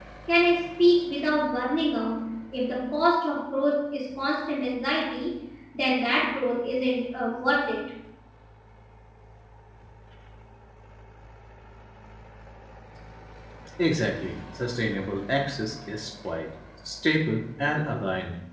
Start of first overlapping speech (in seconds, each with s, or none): none